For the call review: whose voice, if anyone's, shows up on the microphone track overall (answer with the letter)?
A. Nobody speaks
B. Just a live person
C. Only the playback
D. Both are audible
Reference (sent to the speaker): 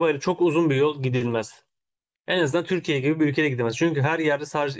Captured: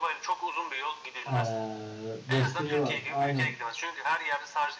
D